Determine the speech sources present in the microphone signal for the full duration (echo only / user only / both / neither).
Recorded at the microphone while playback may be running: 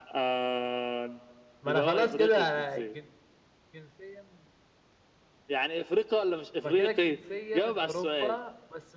both